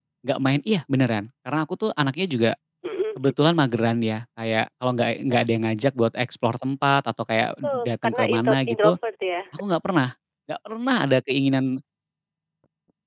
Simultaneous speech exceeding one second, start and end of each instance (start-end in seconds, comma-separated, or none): 7.7-8.9